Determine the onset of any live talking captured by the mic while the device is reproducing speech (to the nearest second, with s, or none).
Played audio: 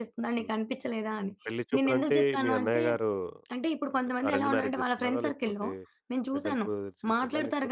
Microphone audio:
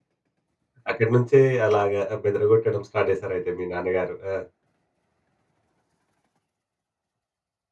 1 s